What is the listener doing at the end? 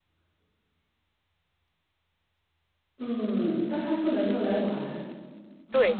taking over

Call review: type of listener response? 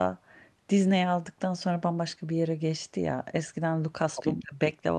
listening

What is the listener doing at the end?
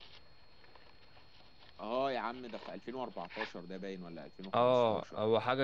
taking over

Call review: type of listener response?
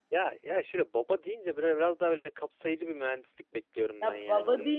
taking over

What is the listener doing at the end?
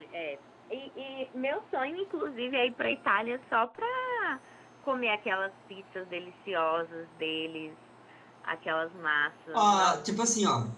taking over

